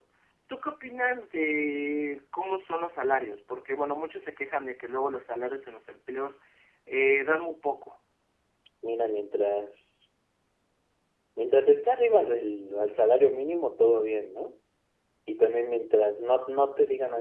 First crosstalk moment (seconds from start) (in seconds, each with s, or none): none